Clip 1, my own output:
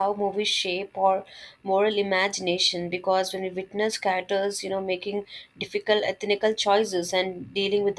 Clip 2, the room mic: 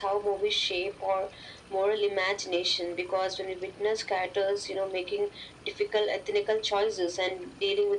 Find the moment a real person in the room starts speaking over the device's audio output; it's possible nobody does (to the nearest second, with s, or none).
none